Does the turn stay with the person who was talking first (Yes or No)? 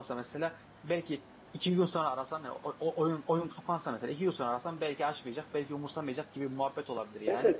No